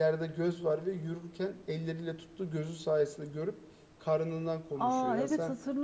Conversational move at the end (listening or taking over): taking over